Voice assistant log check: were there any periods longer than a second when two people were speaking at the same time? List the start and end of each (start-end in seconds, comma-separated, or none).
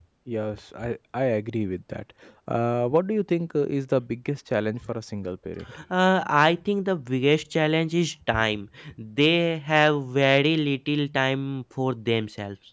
none